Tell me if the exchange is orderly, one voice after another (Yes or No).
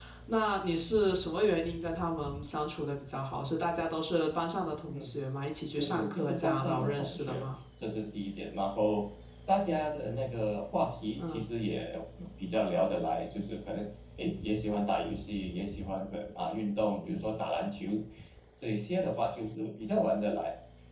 No